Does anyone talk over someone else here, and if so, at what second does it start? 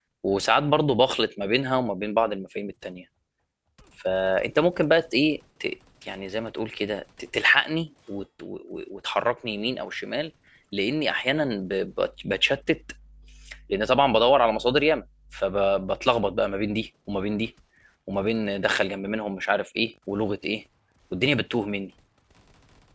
none

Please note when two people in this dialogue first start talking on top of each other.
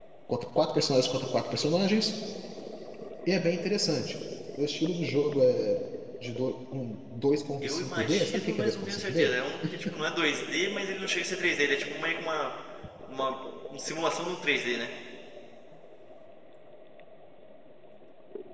7.6 s

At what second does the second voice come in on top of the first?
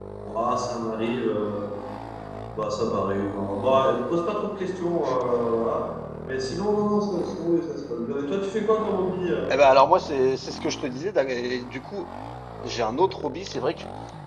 none

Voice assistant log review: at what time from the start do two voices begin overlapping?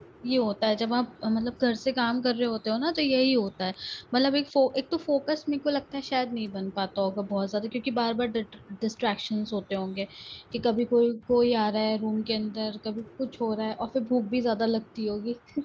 none

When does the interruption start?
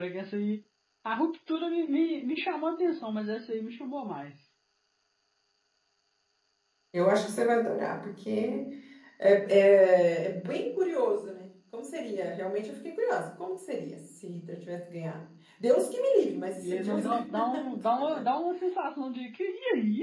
16.6 s

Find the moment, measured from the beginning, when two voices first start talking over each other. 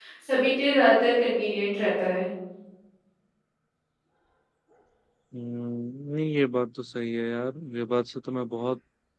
none

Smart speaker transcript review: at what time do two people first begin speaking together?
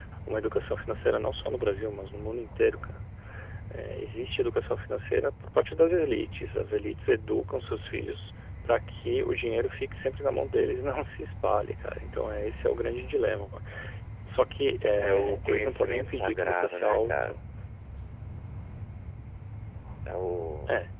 15.0 s

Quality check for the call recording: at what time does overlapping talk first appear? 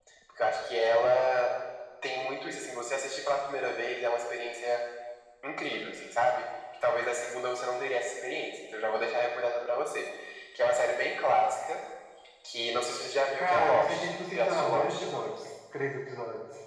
13.4 s

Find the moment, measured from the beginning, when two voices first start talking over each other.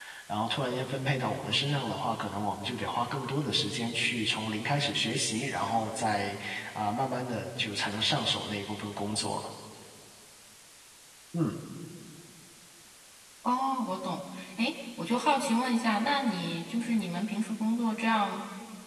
none

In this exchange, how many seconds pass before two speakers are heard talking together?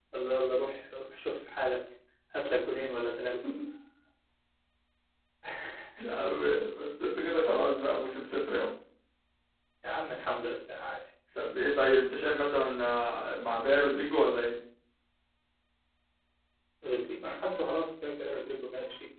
none

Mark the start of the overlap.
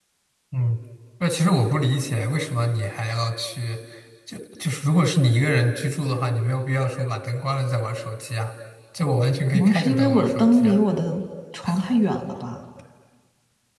9.5 s

